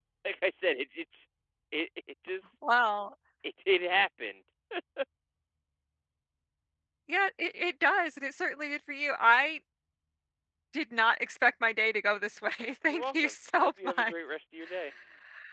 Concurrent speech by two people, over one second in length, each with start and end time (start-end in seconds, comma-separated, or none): 12.9-14.1